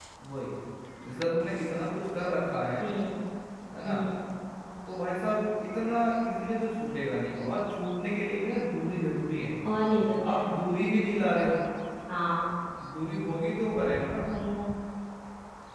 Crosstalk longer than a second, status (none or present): none